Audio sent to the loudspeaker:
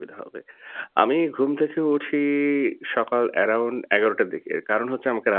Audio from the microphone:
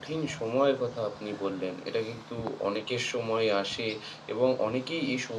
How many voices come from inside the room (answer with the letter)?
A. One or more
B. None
A